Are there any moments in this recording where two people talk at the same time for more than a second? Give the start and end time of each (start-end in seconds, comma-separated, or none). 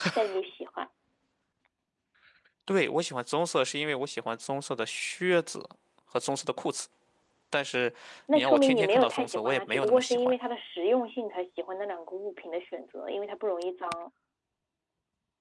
8.3-10.3